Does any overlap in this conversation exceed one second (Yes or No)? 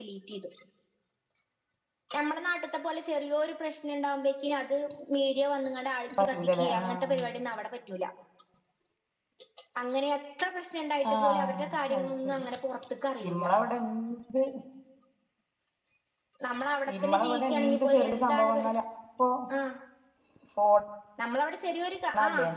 Yes